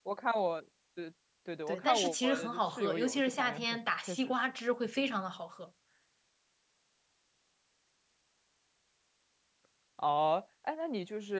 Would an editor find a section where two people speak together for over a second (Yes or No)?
Yes